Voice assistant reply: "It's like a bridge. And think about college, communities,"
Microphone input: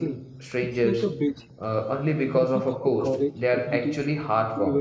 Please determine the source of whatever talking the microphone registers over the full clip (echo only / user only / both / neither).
both